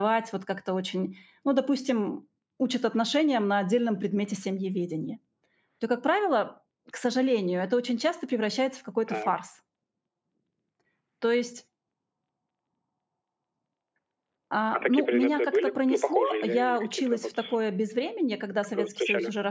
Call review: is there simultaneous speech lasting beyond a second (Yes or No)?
Yes